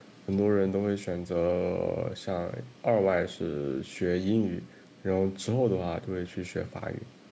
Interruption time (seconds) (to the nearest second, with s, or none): none